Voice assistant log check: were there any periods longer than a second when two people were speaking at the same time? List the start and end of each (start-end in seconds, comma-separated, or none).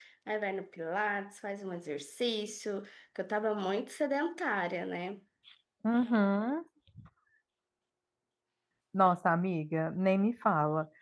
none